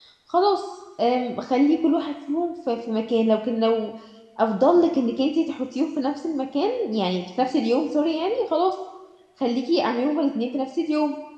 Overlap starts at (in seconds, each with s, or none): none